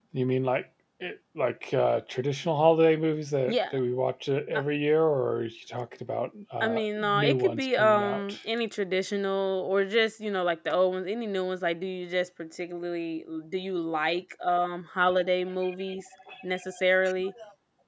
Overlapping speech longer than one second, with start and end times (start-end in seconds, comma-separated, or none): 6.6-8.4